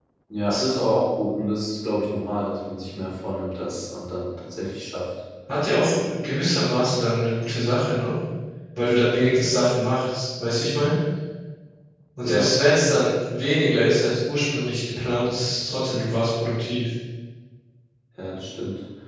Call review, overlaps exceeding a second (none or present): none